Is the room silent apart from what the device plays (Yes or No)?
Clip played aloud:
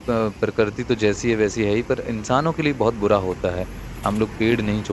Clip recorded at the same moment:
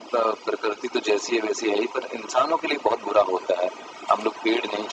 Yes